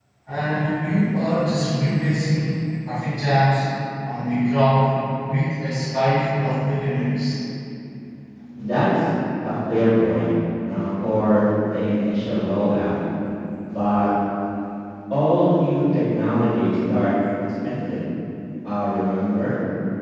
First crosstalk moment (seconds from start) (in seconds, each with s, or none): none